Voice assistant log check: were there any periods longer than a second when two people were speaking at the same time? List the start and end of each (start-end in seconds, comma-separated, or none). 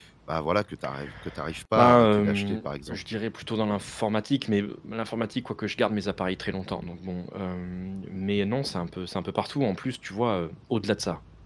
1.8-3.0